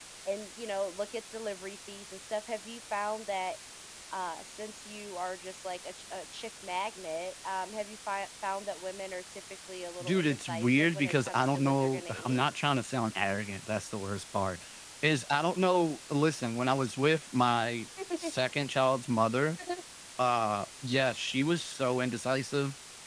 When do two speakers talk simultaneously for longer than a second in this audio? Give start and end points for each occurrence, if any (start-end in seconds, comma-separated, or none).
10.0-12.4